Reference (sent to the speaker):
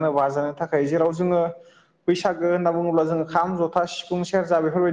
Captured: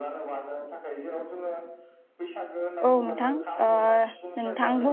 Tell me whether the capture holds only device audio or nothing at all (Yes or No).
No